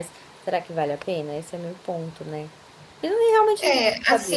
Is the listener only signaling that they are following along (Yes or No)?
No